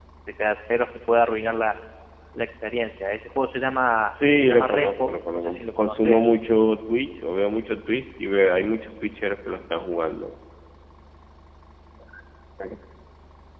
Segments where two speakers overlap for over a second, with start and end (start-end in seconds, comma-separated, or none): 4.3-6.2